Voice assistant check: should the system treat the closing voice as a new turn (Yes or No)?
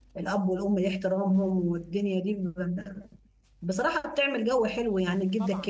No